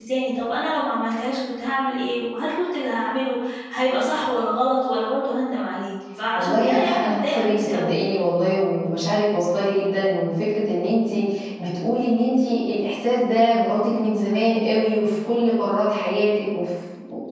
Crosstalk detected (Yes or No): Yes